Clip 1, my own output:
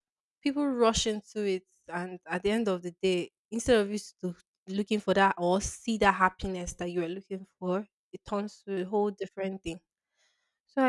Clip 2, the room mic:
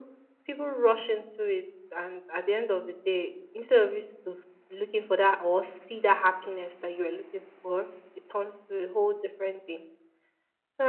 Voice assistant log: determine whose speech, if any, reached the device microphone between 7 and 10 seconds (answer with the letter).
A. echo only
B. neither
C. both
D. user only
A